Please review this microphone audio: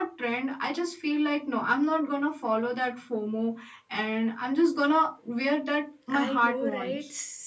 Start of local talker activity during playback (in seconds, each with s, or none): 6.2 s